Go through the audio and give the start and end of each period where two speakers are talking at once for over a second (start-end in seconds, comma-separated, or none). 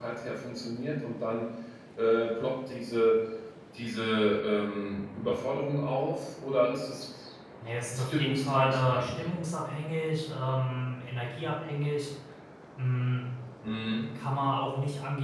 7.9-9.2